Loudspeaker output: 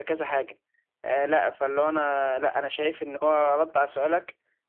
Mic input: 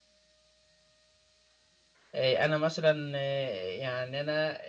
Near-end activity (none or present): present